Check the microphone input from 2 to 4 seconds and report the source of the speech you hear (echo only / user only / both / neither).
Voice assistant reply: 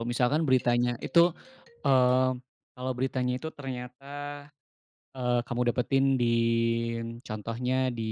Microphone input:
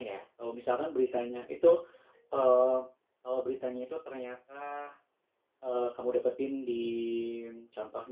echo only